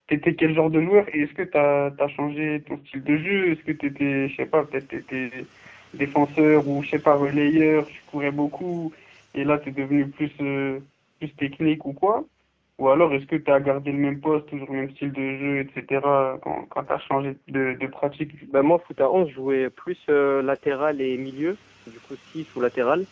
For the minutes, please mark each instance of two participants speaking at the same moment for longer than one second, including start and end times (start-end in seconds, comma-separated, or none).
none